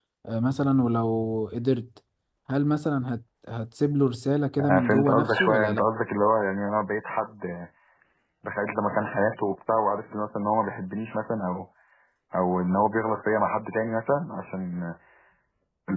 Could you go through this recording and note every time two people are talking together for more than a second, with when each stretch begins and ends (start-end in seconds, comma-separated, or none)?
4.6-5.8